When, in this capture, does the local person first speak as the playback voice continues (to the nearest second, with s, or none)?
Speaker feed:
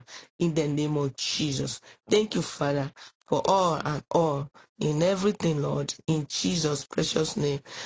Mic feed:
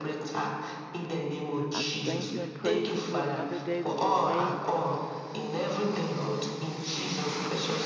2 s